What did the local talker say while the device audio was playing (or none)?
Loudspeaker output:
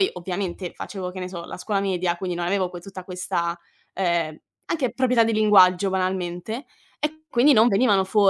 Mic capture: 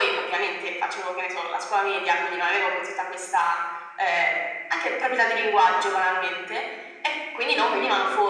none